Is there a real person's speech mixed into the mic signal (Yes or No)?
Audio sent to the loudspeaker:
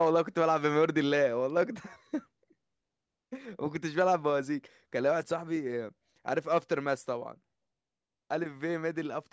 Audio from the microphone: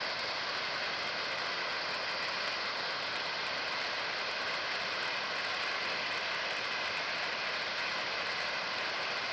No